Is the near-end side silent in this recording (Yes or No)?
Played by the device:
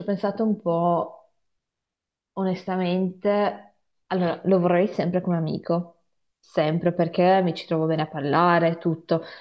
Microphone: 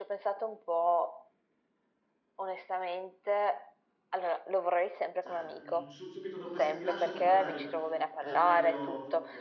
No